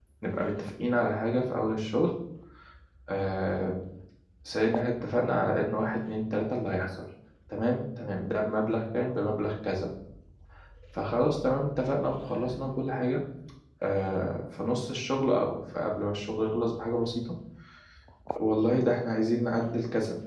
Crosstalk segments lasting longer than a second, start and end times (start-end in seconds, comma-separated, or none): none